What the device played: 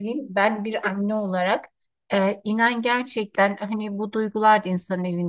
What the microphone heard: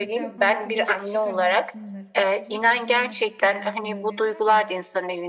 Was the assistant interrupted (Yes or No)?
Yes